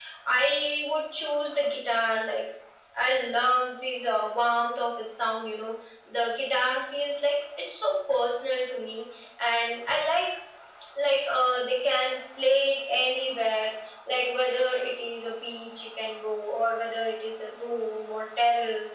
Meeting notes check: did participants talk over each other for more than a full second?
No

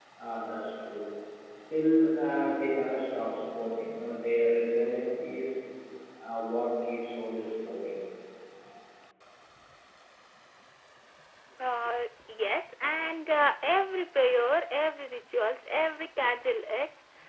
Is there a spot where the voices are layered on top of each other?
No

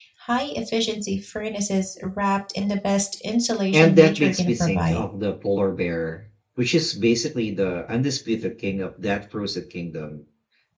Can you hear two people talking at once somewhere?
Yes, from 3.7 s

